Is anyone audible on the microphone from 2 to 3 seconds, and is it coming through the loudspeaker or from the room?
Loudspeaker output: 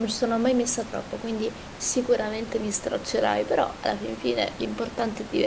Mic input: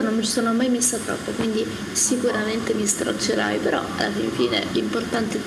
both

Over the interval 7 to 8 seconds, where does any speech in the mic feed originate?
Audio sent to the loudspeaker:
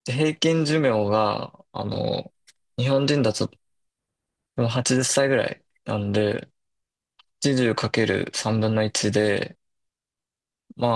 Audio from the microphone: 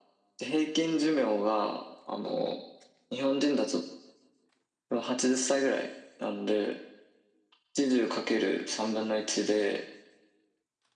echo only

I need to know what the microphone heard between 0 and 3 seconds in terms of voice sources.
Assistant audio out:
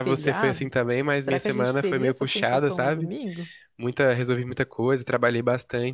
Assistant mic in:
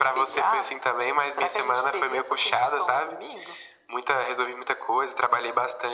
echo only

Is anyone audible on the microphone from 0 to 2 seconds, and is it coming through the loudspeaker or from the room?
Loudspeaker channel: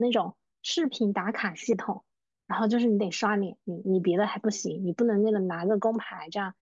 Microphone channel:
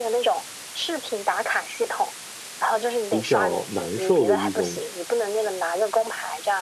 echo only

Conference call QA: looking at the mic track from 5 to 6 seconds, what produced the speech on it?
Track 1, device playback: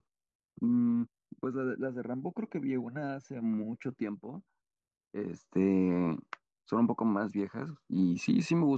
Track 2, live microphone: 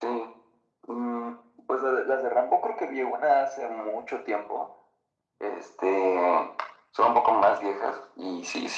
echo only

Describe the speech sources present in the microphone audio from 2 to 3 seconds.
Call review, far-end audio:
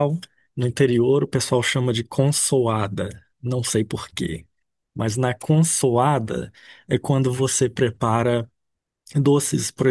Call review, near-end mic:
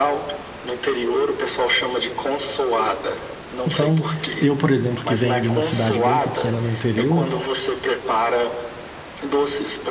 echo only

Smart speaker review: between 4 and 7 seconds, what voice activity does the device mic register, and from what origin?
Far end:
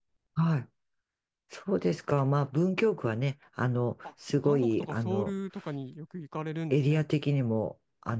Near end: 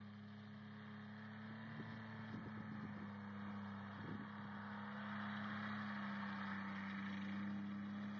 neither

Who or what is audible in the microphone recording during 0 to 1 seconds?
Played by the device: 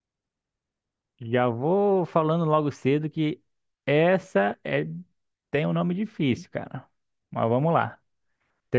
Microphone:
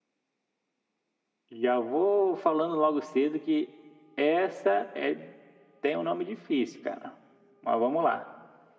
neither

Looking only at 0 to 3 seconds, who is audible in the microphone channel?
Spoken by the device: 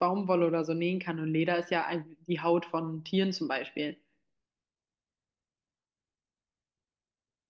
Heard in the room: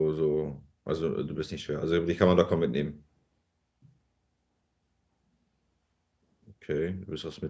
user only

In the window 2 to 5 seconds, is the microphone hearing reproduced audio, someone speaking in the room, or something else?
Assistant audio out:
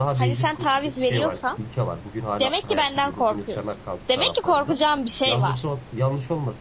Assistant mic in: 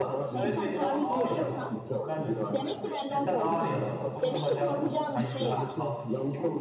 both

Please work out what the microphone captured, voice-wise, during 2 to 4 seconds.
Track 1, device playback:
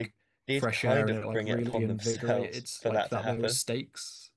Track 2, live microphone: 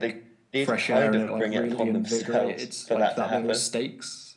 echo only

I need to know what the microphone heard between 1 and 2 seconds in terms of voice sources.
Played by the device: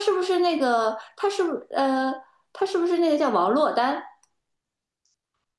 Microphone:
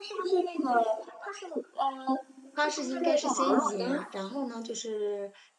echo only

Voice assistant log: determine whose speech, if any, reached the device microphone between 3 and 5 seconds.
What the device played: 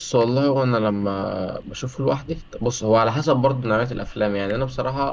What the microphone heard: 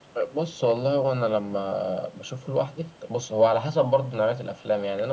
echo only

